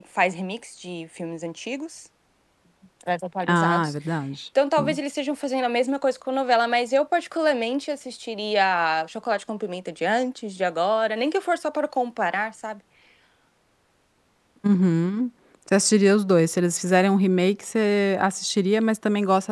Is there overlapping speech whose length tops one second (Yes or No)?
No